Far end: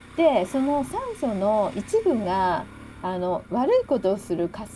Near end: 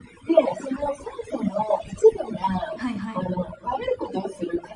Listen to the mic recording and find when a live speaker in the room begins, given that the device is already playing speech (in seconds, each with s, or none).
2.8 s